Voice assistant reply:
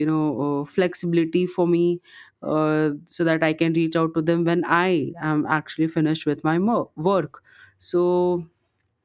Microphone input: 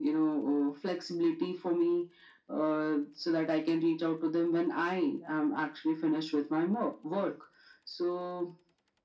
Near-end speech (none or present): none